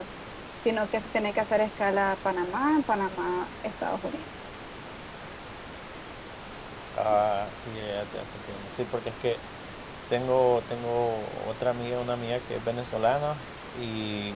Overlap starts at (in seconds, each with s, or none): none